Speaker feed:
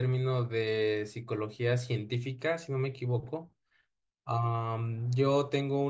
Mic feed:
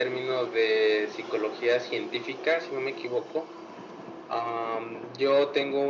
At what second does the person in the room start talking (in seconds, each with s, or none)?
none